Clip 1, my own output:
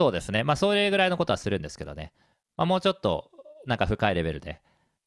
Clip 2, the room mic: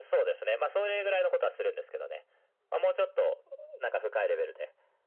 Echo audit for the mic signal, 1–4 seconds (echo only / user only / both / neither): echo only